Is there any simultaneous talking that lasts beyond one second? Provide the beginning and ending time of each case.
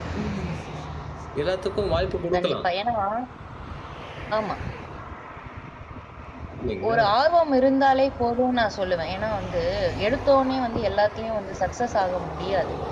none

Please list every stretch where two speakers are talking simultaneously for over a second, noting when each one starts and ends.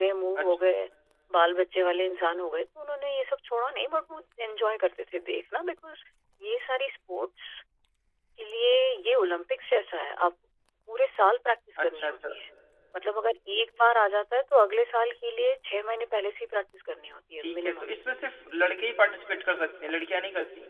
none

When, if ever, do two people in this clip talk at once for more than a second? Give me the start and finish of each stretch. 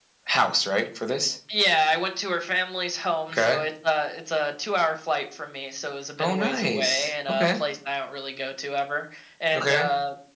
6.2-7.6

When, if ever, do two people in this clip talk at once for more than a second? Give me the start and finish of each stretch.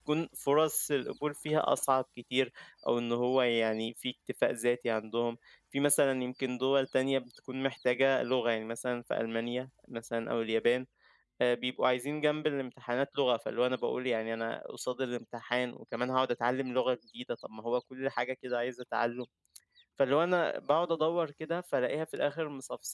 none

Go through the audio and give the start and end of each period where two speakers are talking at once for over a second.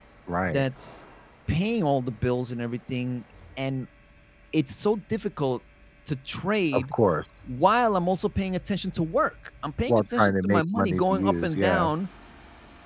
9.9-11.9

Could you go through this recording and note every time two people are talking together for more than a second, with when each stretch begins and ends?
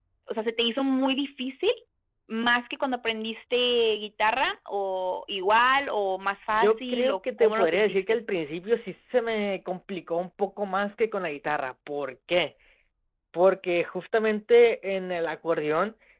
6.6-8.2

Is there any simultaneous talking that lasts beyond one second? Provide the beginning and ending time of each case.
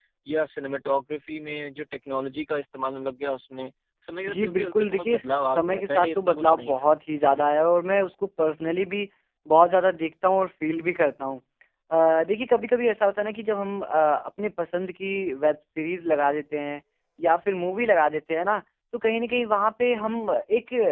4.3-6.9

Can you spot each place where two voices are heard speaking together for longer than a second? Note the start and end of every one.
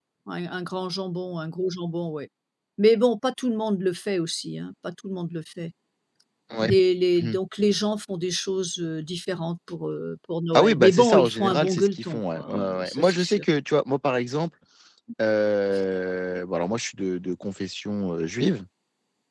10.5-13.4

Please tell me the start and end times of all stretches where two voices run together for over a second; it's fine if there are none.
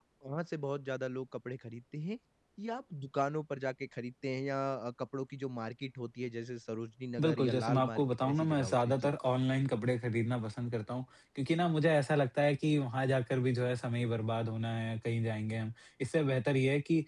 7.2-9.1

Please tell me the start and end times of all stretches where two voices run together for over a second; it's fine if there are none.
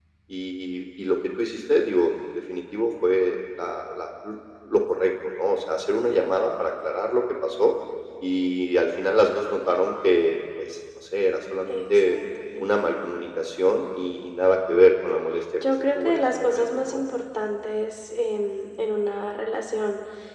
15.7-17.0

